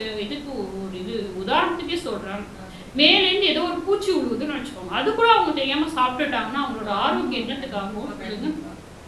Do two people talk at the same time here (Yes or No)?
Yes